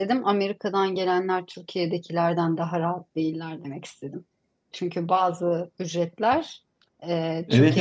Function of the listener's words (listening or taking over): taking over